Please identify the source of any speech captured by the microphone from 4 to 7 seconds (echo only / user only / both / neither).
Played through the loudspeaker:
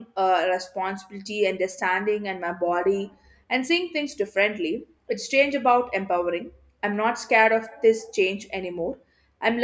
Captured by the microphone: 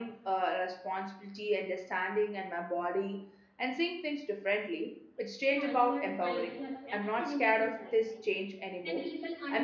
both